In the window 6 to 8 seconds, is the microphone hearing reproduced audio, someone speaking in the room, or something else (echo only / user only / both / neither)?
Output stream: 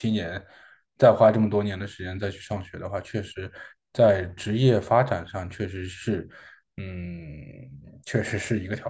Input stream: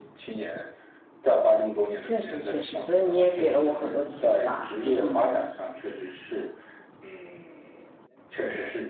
echo only